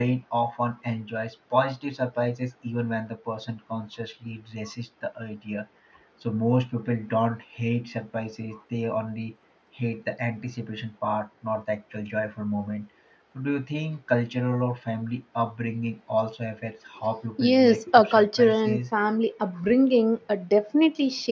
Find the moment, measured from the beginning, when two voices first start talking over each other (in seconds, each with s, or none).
17.4 s